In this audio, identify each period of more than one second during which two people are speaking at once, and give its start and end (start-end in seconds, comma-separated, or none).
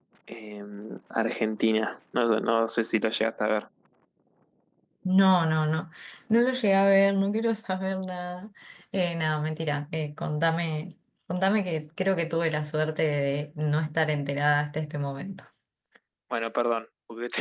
none